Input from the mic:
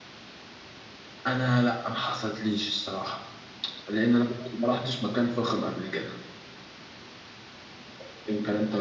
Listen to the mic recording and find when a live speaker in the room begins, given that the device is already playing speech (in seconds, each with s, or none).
none